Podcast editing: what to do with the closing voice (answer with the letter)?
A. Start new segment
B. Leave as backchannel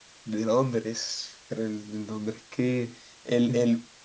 B